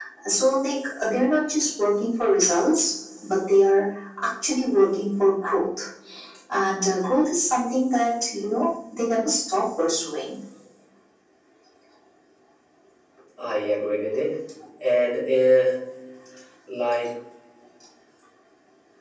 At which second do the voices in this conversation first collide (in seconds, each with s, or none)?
none